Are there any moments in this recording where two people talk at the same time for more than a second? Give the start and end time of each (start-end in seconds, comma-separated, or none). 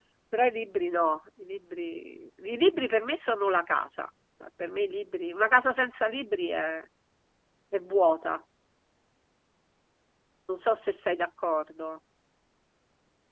none